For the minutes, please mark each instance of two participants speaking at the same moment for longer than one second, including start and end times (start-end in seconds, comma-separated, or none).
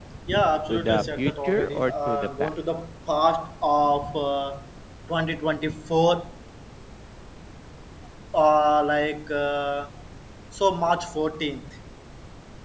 0.7-2.5